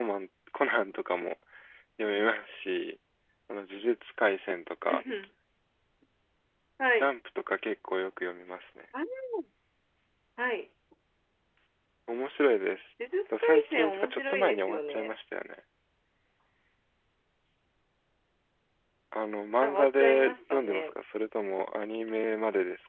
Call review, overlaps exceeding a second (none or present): present